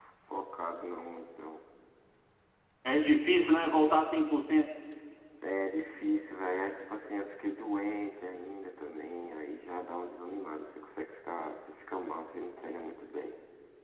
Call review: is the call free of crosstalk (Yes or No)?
Yes